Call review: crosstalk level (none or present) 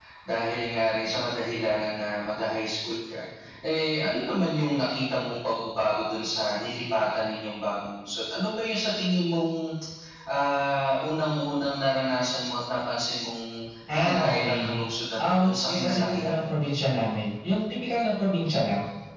present